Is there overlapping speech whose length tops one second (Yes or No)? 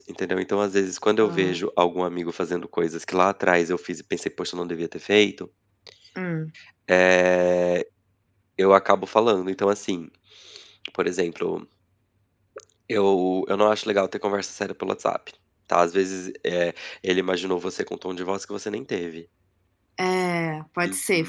No